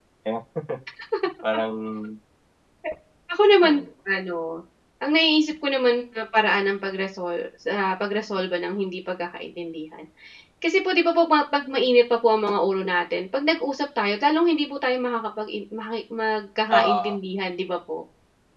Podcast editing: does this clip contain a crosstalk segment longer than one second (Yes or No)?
No